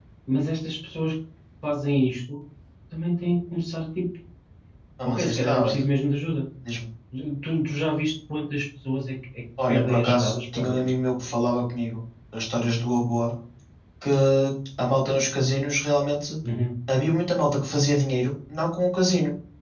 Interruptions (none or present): present